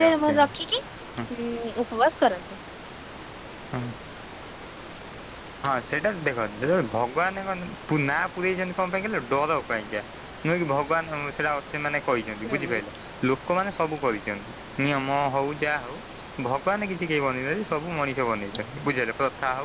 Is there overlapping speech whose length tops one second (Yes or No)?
No